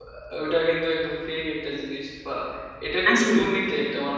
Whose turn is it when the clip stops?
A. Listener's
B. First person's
B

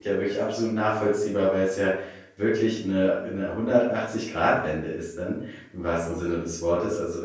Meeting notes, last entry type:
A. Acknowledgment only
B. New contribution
A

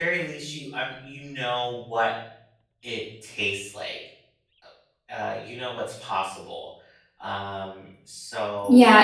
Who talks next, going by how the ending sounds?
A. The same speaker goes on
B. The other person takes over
B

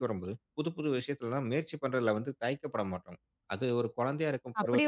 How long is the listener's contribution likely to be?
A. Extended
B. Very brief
A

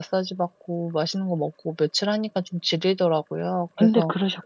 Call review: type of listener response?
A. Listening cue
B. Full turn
A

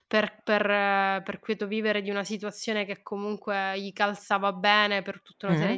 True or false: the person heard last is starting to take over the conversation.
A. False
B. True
A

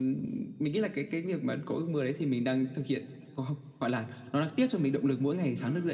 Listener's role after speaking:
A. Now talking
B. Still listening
A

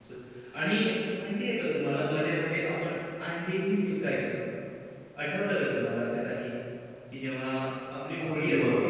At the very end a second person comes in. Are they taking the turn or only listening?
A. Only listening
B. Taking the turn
B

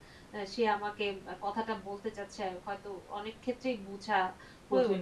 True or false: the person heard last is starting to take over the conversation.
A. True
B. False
A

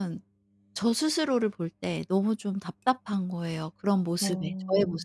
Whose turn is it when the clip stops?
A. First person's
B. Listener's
B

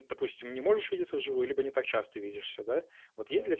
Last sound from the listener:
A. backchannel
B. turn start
A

